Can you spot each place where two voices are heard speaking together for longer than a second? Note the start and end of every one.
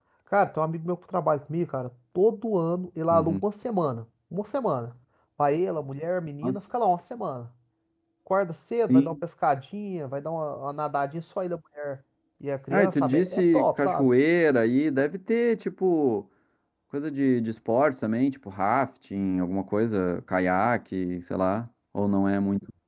12.7-14.1

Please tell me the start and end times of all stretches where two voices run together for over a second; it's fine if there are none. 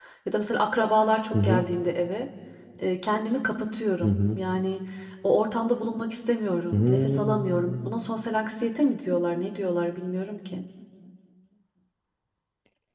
6.7-8.0

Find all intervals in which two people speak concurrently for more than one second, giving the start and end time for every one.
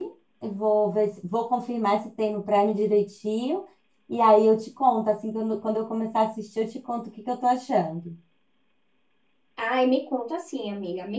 none

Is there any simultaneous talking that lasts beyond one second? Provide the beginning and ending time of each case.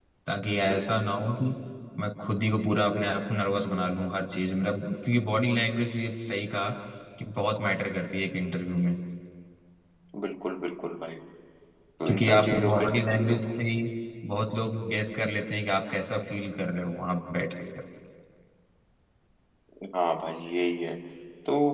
12.1-13.4

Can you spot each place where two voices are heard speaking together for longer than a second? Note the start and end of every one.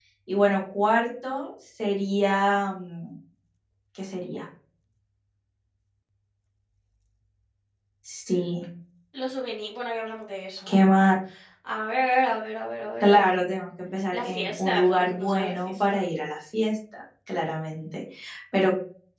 14.1-16.0

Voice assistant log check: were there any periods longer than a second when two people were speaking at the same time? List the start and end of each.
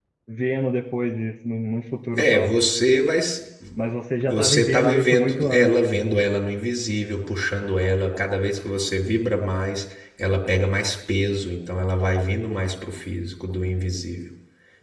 4.3-5.7

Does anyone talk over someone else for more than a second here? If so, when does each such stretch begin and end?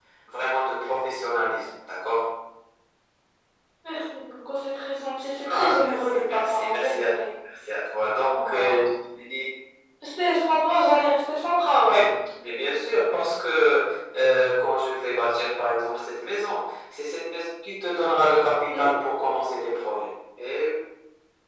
5.5-7.0

